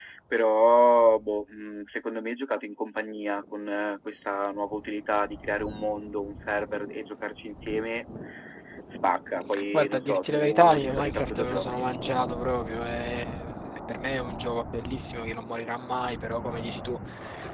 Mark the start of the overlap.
9.5 s

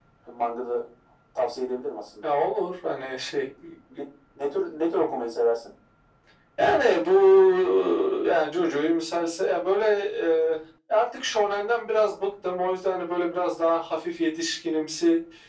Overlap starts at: none

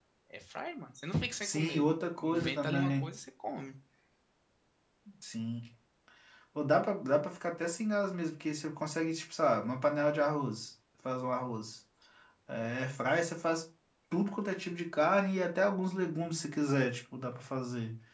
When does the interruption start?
1.4 s

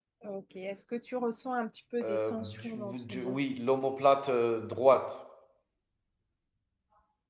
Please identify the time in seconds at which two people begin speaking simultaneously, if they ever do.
2.0 s

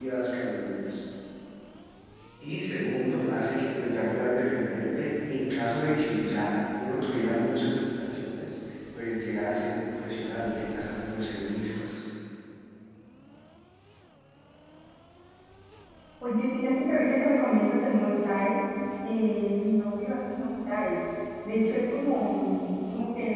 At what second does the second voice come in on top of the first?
none

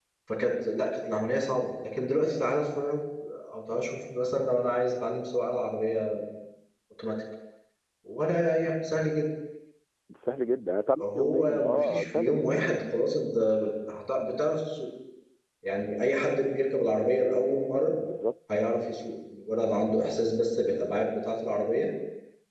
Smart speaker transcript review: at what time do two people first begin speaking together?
11.0 s

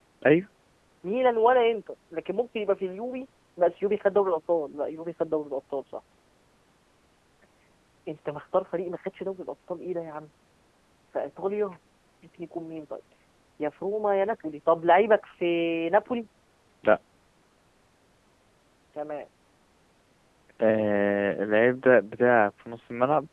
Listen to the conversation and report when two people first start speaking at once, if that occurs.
none

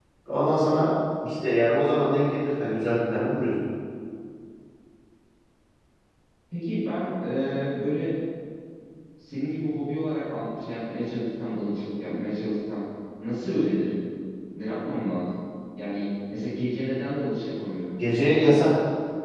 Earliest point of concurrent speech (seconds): none

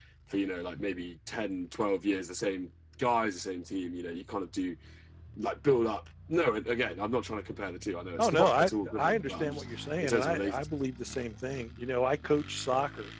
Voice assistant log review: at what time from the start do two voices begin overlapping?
8.2 s

